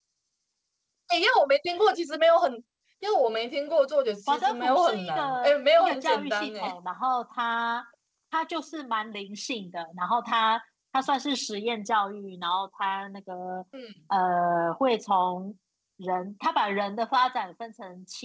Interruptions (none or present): present